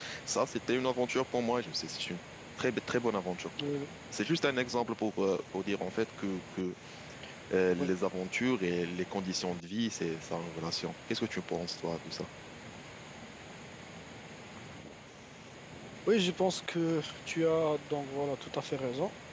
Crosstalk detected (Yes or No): No